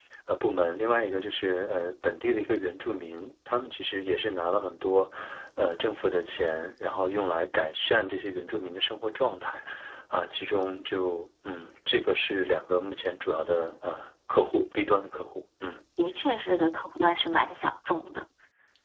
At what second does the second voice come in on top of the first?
none

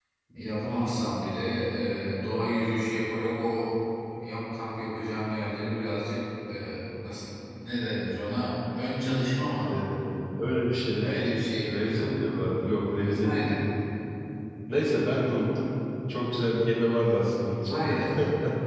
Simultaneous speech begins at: 11.0 s

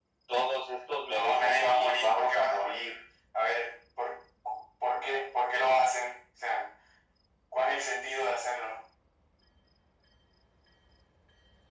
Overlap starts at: 1.1 s

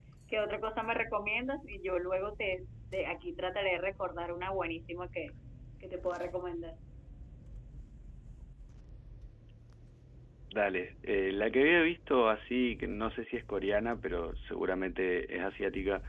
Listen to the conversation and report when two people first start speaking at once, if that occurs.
none

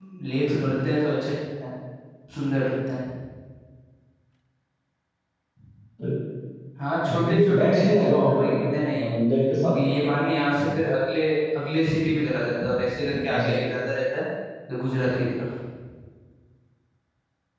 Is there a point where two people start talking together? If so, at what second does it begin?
7.1 s

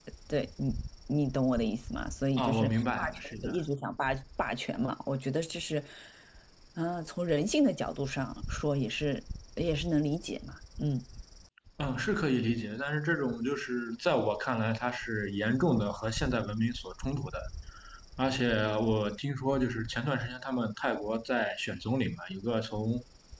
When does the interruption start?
2.4 s

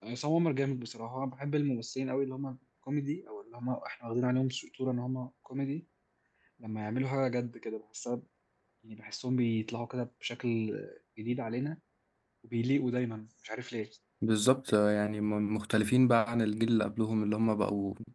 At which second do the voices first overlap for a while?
none

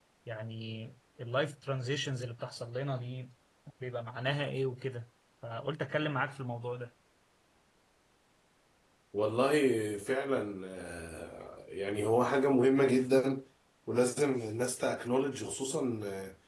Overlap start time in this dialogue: none

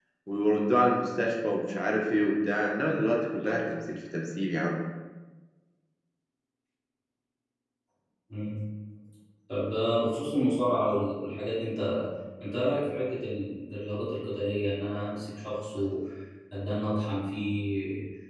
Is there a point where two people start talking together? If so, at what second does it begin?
none

